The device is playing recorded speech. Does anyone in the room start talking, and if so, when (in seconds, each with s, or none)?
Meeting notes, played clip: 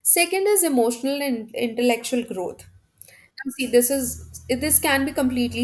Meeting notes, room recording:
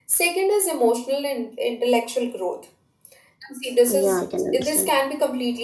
3.9 s